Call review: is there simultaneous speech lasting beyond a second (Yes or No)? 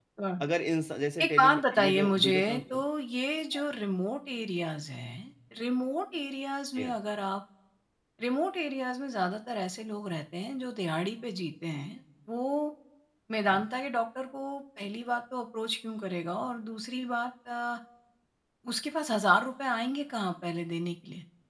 Yes